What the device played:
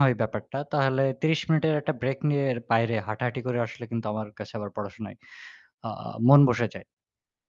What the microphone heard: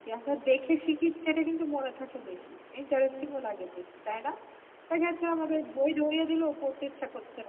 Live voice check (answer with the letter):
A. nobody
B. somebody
B